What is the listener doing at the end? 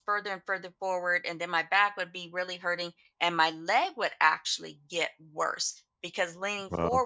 listening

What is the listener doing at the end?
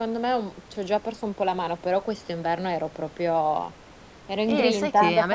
taking over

